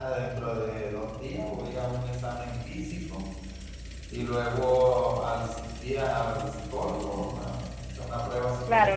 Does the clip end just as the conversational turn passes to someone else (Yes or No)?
Yes